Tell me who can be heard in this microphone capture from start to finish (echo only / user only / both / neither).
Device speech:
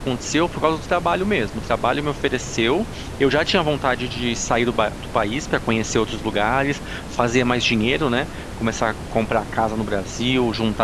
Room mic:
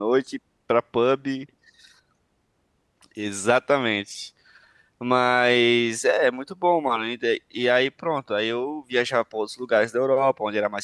user only